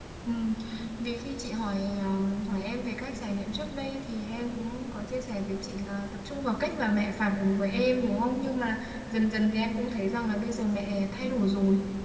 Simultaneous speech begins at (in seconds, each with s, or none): none